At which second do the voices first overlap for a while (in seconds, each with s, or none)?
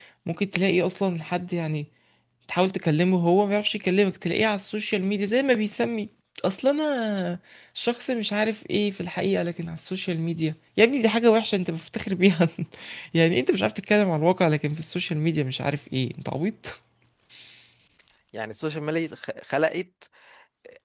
none